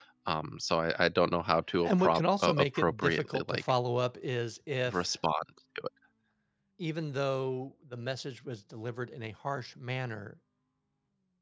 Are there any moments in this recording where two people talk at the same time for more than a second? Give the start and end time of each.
1.8-3.6

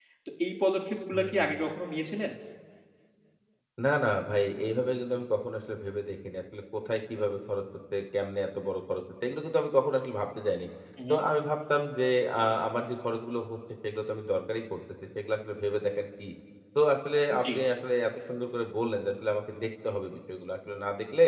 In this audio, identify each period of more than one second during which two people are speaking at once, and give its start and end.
none

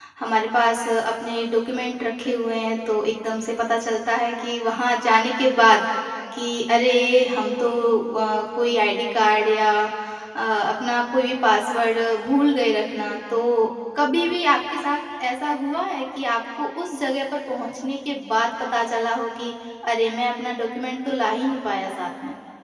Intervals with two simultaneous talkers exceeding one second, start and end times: none

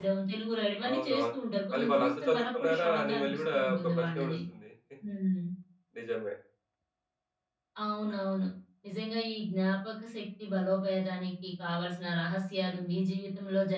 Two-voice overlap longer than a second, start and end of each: 1.7-4.3

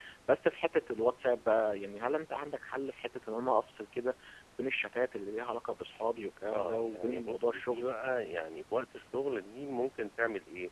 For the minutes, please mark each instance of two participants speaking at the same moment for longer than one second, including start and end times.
6.5-7.9

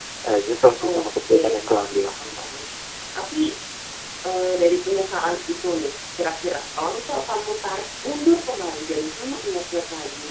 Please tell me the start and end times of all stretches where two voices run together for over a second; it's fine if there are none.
0.9-2.1

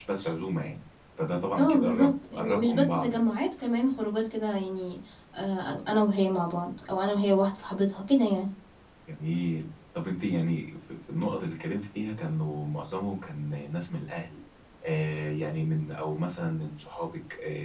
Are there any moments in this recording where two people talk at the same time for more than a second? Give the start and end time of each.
1.6-3.2

